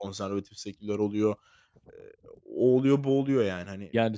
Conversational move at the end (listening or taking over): taking over